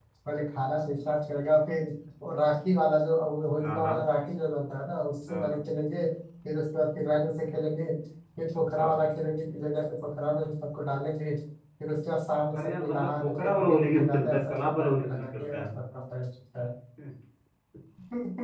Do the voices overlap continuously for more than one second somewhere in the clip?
Yes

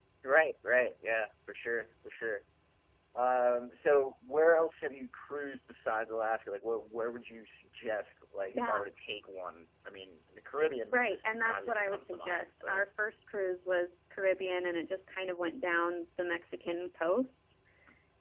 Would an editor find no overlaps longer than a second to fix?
No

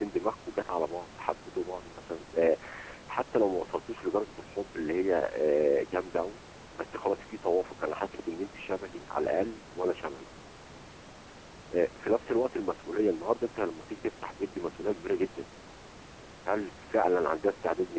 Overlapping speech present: No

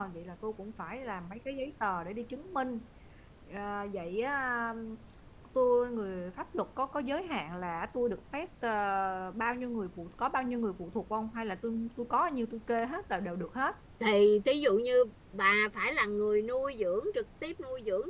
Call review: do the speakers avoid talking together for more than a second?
Yes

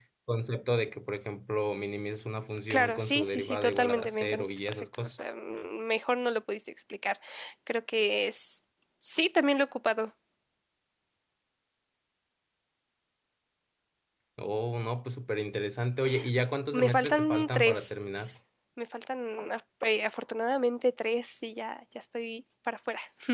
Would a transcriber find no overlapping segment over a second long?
No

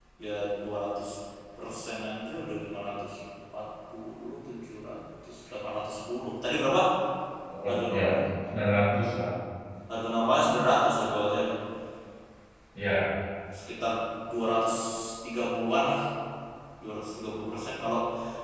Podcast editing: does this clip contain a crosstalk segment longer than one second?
No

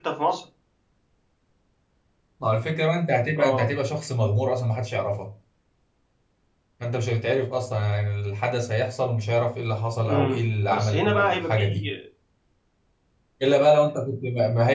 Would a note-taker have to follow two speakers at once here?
Yes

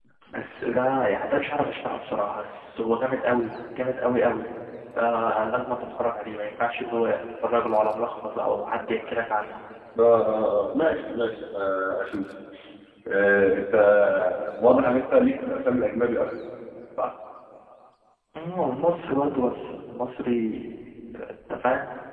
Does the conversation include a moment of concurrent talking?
No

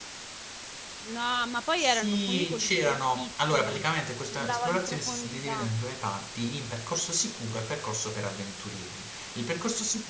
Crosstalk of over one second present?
Yes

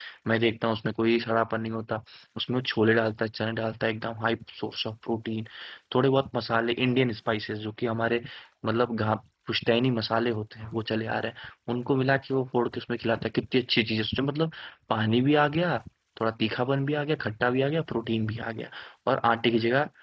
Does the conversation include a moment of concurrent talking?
No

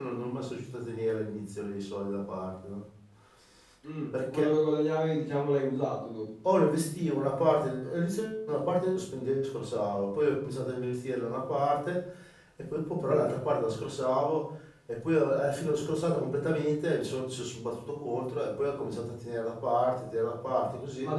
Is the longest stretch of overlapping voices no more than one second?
Yes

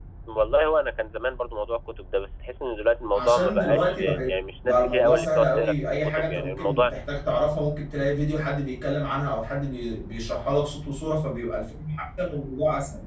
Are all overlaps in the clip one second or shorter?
No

